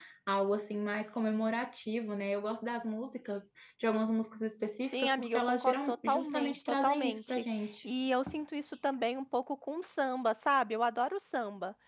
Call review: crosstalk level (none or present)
present